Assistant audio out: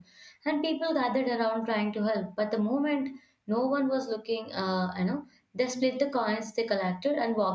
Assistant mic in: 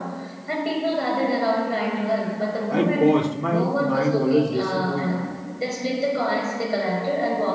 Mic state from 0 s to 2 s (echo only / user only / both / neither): echo only